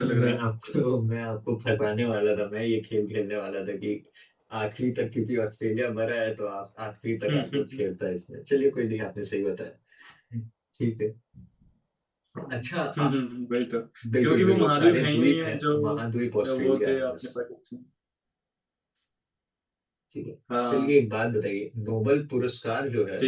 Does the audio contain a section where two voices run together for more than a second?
Yes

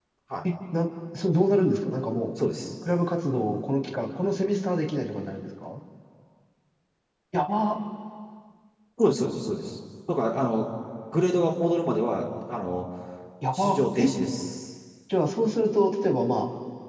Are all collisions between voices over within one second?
Yes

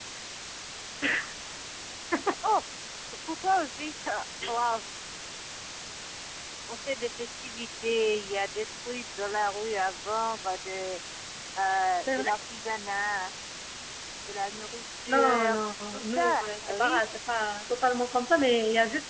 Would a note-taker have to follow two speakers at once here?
Yes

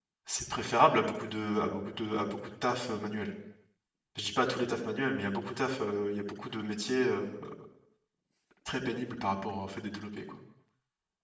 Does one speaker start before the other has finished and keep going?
No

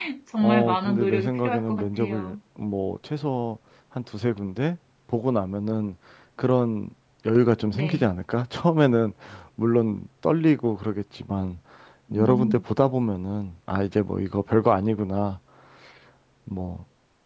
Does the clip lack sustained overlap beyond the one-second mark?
No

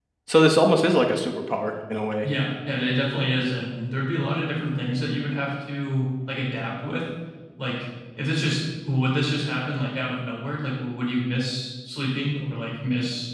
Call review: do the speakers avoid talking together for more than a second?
Yes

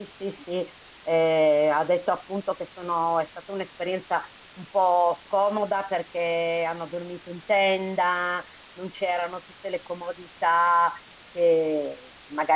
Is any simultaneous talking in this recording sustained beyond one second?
No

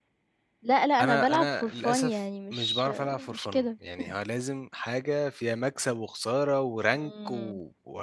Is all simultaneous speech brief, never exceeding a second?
No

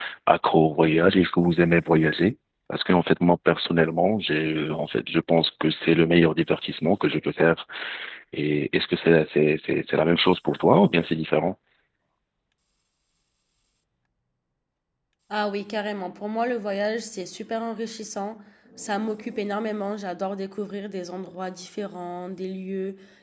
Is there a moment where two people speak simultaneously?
No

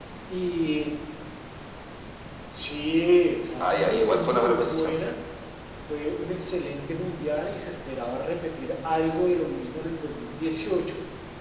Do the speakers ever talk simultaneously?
Yes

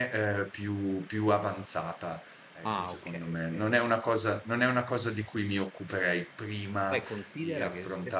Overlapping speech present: Yes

